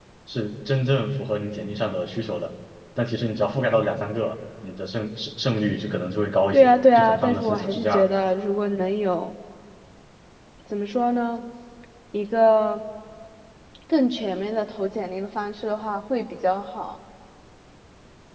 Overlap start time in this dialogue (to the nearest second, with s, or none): 7 s